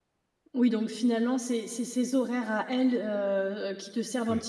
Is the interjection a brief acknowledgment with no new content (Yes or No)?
Yes